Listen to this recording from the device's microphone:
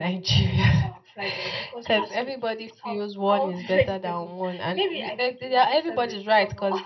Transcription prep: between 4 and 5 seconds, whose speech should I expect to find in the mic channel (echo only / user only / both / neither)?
echo only